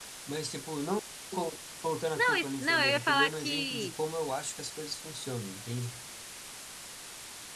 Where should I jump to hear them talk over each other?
2.1 s

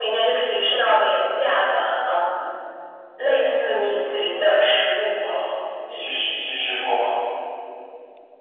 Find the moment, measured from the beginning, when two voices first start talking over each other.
none

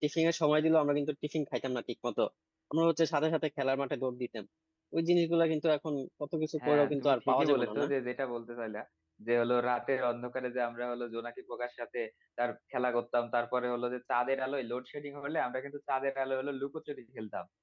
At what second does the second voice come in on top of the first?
6.6 s

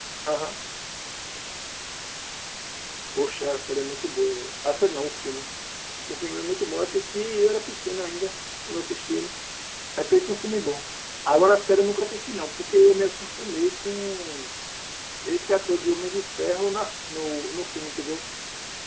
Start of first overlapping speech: none

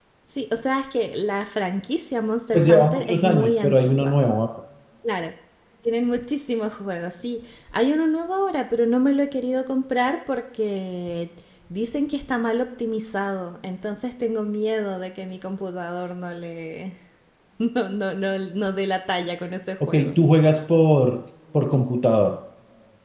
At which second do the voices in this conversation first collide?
2.5 s

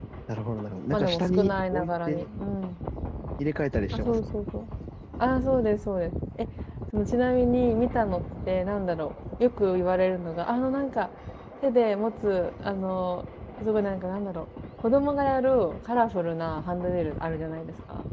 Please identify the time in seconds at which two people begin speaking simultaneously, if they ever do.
0.9 s

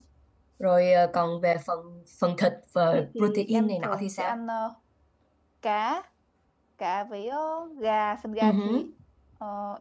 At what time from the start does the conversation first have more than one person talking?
2.9 s

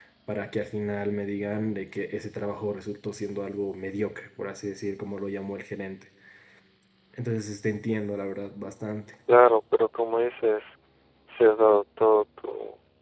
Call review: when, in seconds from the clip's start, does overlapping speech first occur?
none

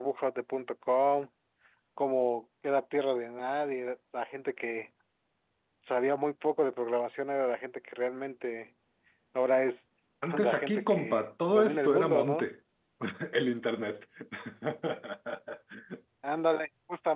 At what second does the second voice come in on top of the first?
10.4 s

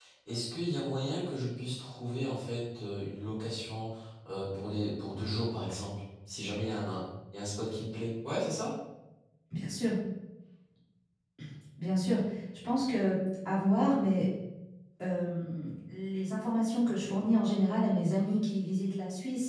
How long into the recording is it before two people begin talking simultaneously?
none

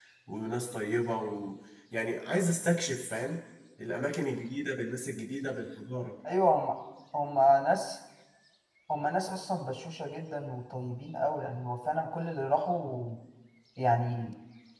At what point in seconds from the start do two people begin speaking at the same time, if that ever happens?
none

